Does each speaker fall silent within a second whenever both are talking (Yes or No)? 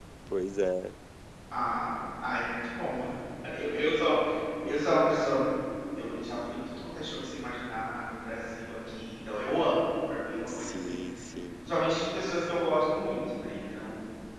Yes